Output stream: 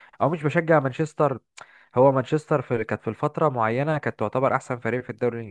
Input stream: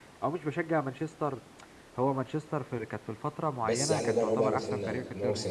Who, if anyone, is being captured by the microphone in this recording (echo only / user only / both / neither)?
both